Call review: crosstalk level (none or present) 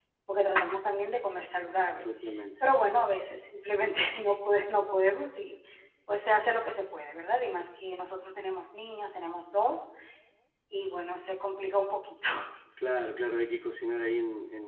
none